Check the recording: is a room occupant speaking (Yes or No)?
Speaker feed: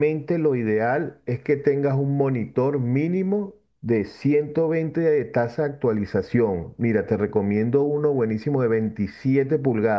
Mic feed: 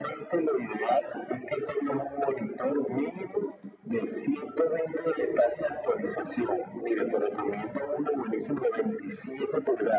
No